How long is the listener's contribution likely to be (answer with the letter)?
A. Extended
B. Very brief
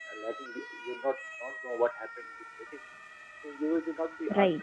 B